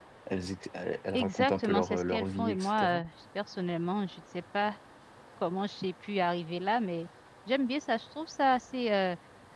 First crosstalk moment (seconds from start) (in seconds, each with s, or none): 1.1 s